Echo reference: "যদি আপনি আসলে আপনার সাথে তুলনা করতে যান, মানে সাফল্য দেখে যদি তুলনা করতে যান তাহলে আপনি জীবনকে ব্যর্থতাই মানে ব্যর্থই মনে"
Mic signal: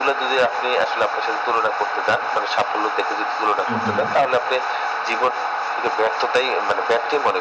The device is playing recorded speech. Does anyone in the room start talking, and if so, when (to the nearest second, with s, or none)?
4 s